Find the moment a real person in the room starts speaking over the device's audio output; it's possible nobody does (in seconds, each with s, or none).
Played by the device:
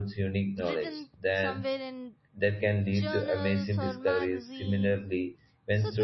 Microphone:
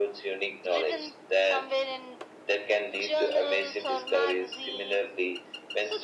none